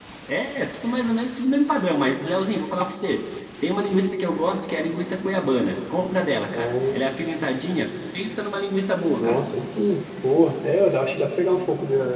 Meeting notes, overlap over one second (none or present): none